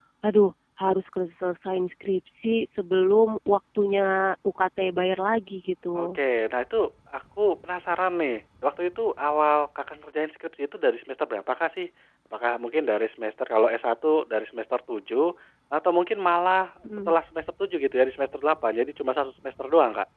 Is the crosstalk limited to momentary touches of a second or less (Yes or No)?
Yes